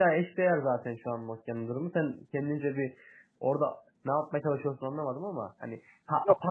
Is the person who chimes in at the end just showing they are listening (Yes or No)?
Yes